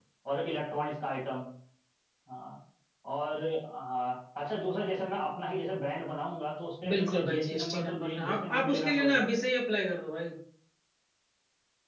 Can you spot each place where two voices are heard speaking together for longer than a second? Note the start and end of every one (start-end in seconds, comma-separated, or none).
6.9-9.3